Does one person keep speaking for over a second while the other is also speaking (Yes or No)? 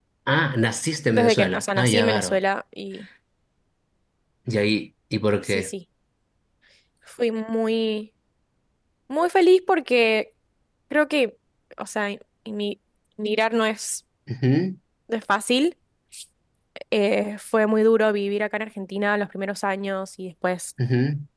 Yes